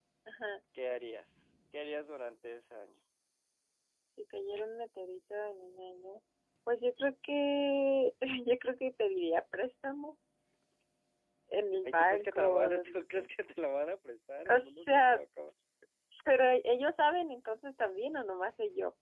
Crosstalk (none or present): present